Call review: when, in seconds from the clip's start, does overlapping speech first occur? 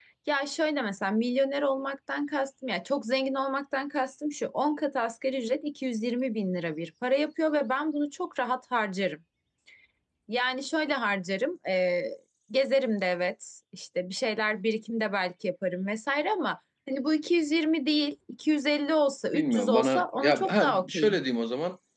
19.3 s

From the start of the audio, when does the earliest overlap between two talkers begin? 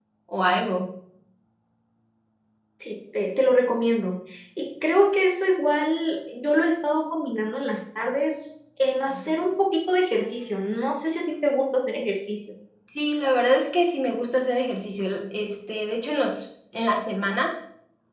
none

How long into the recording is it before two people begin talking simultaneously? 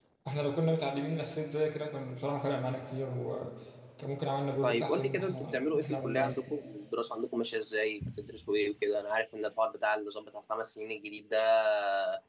4.6 s

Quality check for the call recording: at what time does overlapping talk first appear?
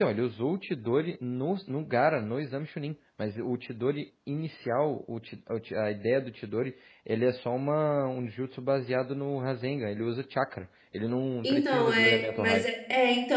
11.4 s

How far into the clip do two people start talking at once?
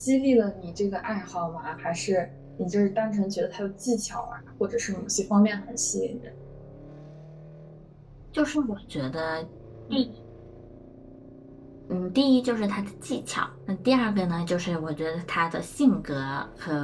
none

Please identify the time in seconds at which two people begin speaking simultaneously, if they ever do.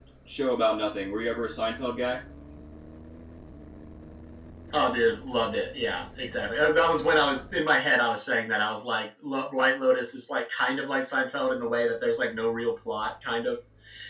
none

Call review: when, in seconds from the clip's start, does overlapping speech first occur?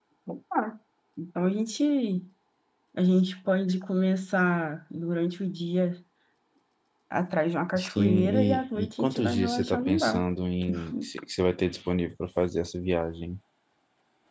7.8 s

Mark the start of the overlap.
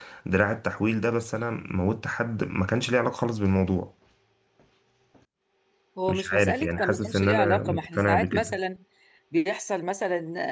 6.1 s

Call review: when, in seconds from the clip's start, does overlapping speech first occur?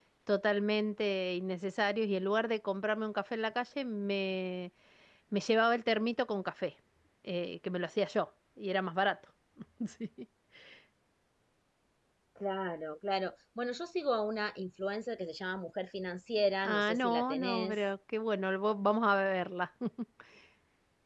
16.6 s

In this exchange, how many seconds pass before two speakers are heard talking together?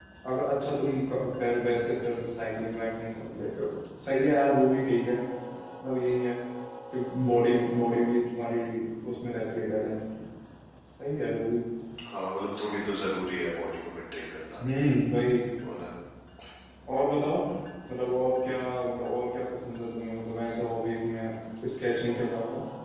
none

